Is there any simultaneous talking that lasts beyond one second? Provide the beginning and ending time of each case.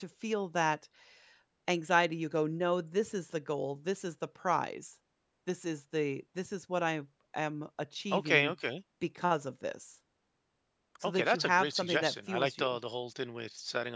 11.0-12.8

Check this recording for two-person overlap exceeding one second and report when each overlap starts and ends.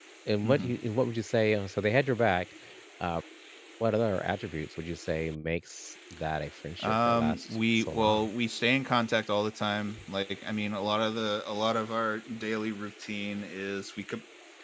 6.8-8.3

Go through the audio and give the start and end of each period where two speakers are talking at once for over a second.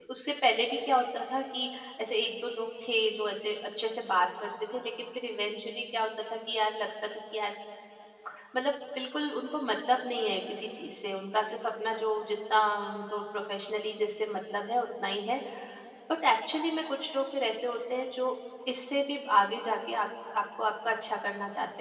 none

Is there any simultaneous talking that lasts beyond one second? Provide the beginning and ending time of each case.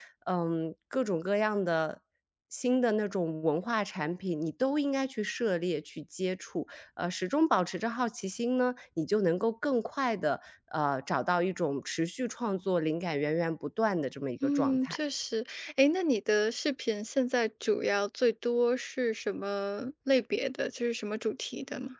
none

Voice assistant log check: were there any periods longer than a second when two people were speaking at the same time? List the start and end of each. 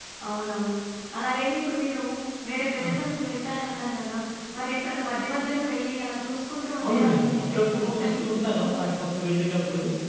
6.8-8.2

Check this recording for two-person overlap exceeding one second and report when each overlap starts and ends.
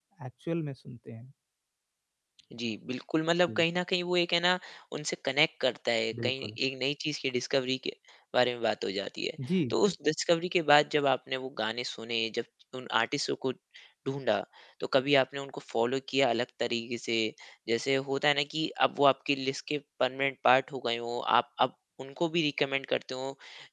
none

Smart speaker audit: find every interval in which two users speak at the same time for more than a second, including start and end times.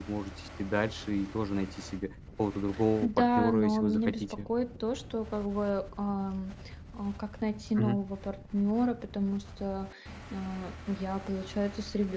3.0-4.5

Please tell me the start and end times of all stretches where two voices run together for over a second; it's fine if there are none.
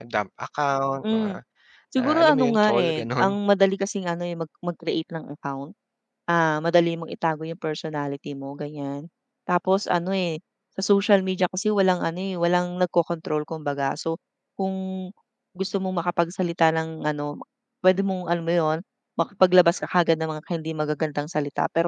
2.0-3.3

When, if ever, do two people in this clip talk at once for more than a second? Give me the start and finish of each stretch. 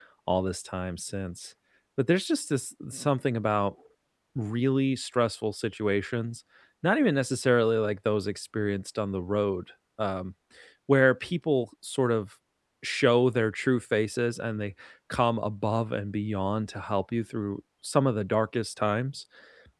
none

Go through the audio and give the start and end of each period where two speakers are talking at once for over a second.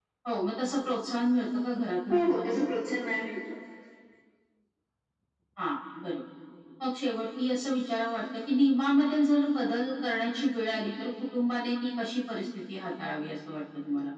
none

